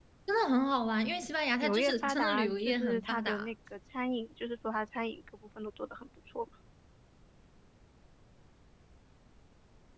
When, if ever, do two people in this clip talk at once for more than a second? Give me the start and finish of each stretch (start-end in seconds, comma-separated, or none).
1.6-3.5